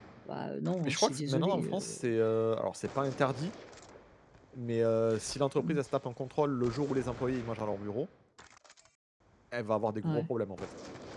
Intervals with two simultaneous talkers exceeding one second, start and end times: 0.8-2.0

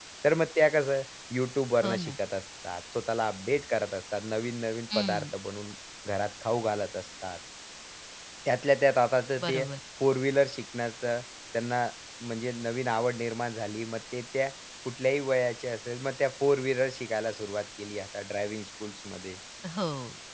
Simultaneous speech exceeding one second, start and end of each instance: none

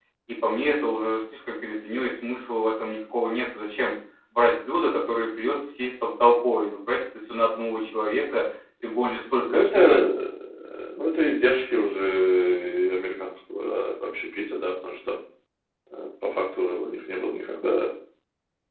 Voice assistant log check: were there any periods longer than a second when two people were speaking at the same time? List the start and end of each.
none

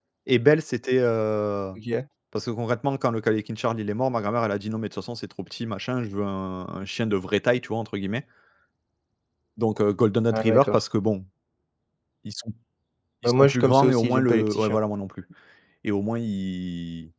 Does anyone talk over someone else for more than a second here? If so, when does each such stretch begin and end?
13.2-14.8

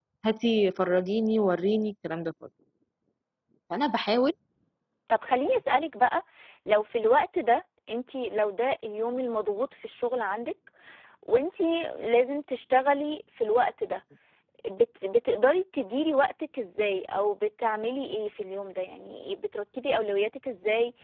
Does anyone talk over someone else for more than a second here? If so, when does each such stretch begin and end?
none

